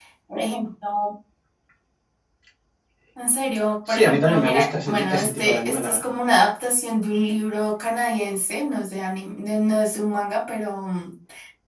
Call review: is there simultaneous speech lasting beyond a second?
Yes, from 3.9 s

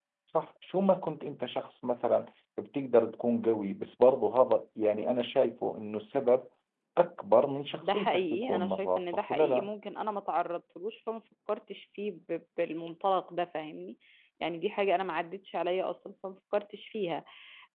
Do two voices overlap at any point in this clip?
Yes, from 7.8 s

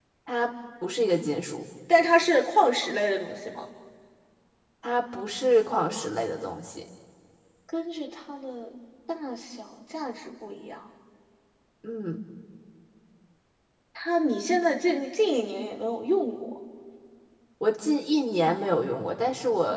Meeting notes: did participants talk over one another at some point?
No

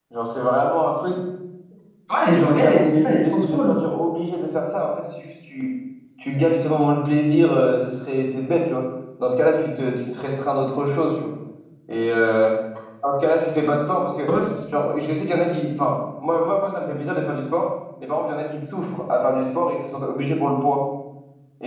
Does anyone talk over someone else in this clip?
Yes, from 2.4 s

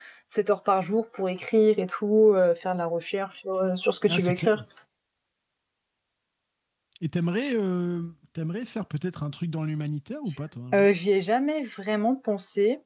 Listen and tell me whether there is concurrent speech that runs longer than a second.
No

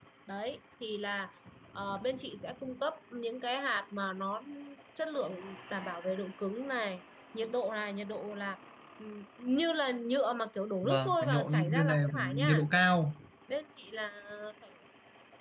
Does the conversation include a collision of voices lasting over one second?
Yes, from 10.8 s

